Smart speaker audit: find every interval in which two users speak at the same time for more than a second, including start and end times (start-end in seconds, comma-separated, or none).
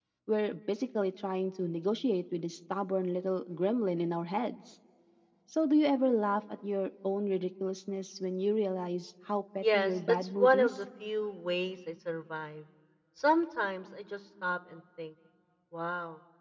9.6-10.8